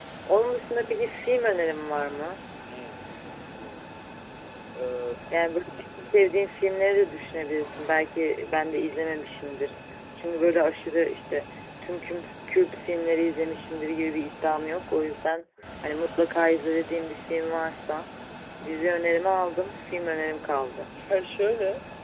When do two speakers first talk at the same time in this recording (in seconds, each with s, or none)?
none